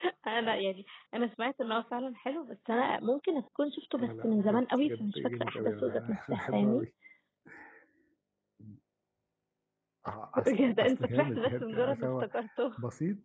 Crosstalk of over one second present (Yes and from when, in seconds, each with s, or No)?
Yes, from 4.0 s